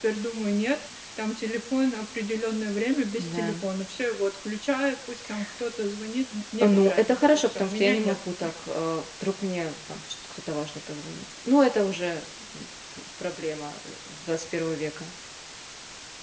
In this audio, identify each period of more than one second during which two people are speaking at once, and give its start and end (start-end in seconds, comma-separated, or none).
6.6-8.2